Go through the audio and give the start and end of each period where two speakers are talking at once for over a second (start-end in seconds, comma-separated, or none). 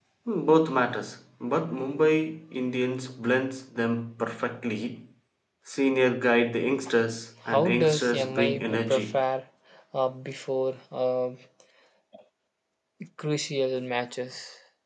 7.5-9.2